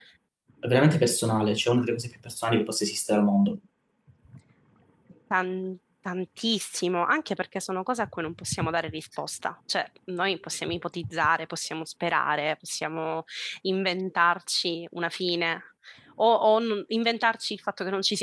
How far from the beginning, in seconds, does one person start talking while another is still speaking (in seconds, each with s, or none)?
none